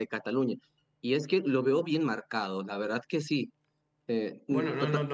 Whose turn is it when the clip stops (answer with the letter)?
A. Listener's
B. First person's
A